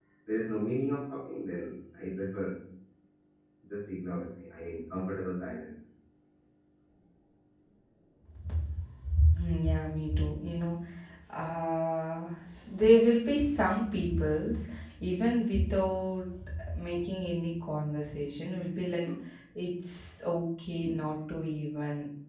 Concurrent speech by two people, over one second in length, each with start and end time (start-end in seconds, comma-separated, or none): none